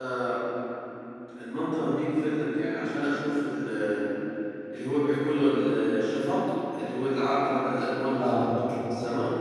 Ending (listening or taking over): taking over